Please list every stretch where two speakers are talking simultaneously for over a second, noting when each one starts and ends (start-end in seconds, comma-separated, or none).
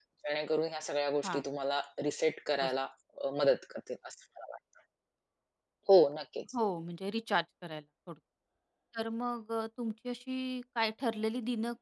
none